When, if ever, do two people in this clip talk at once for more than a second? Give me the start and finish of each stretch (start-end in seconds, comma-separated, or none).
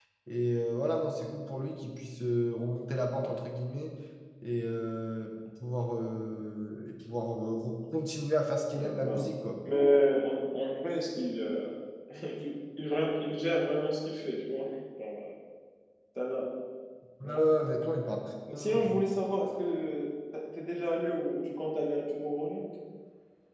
none